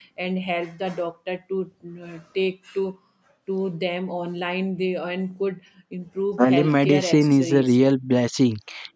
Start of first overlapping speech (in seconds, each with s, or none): 6.4 s